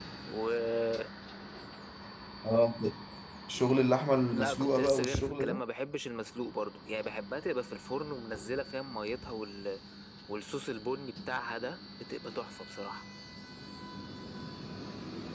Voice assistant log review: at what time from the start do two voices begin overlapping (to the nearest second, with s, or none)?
4 s